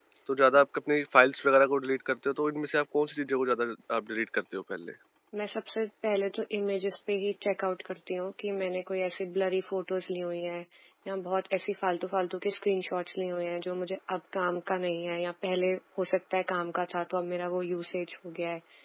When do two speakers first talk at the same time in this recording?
none

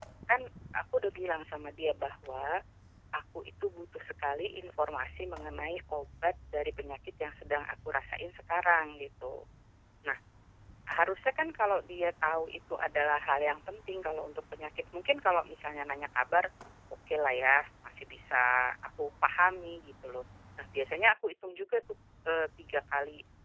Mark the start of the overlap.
none

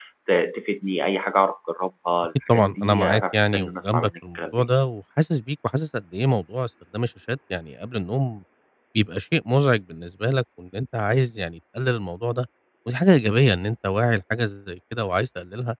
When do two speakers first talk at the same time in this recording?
2 s

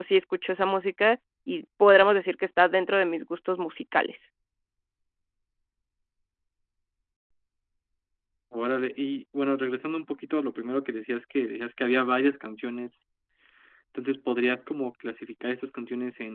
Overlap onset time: none

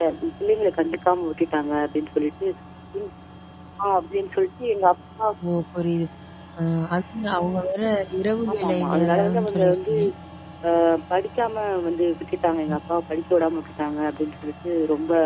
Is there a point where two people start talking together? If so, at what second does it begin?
9 s

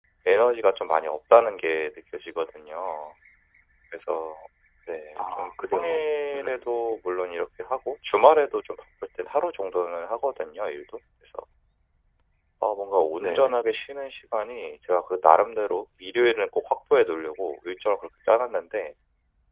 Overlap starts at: 5 s

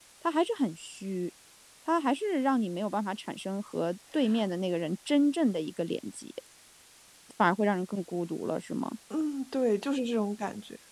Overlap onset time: none

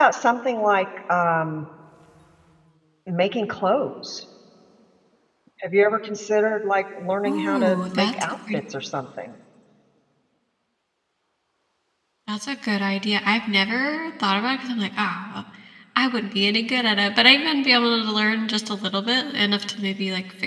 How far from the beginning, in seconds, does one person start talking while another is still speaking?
7 s

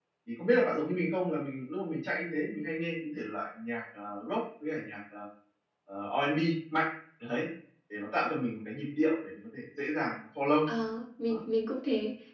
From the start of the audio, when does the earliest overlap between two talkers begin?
none

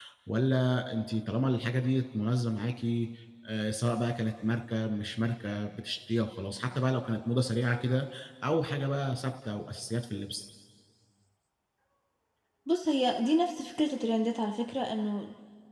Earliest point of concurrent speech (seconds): none

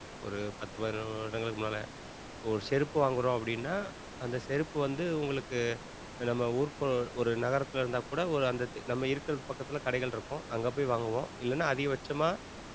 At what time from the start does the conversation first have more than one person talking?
none

